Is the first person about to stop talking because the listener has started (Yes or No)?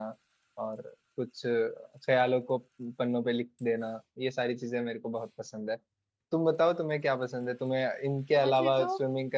No